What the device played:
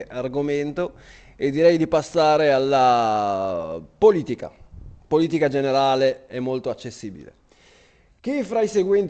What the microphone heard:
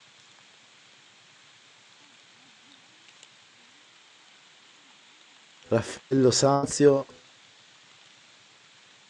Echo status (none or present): none